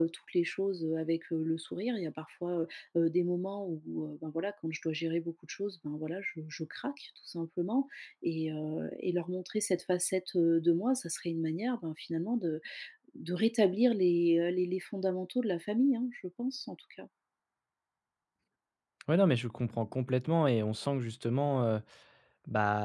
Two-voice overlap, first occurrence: none

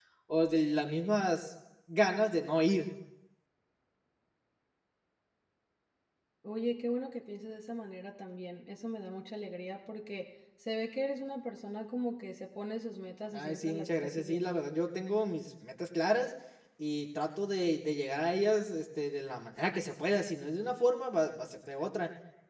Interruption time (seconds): 13.3 s

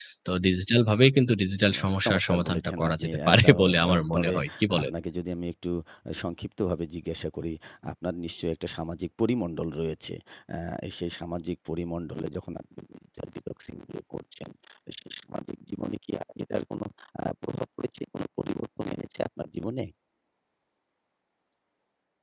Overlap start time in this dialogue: 1.7 s

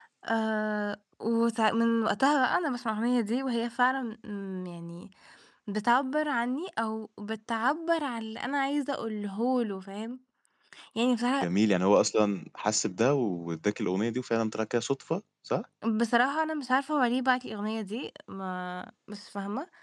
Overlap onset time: none

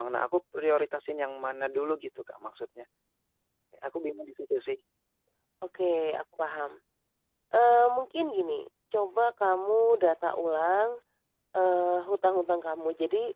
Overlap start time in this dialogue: none

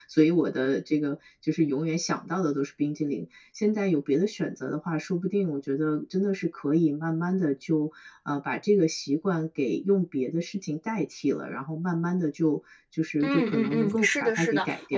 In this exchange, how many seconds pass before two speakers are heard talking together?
13.2 s

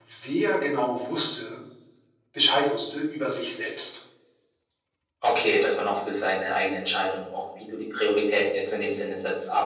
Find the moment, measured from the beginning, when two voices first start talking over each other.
none

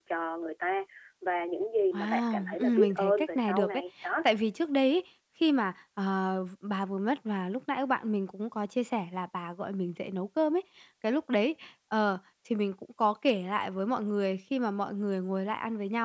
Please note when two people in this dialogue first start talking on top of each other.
1.9 s

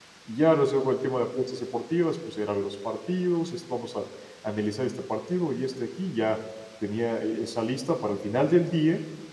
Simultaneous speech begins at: none

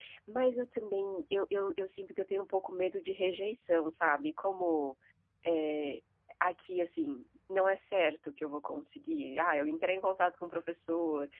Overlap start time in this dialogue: none

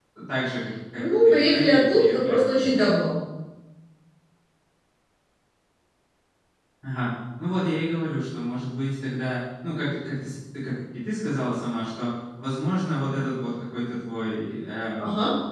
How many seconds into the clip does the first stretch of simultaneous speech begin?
0.9 s

